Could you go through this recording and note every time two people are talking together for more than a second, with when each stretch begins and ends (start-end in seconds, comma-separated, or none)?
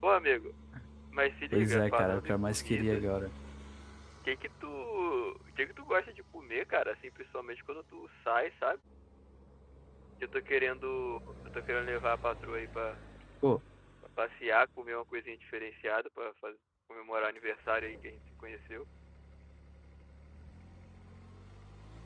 1.5-3.0